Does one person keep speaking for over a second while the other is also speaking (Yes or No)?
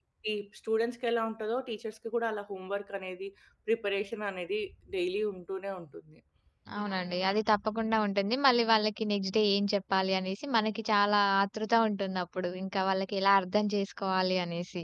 No